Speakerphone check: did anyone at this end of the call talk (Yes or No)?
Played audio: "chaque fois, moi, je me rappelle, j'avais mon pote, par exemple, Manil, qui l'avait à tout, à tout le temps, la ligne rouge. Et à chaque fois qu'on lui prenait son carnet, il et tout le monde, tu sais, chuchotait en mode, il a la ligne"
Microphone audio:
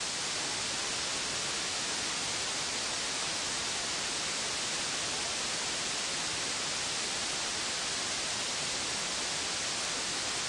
No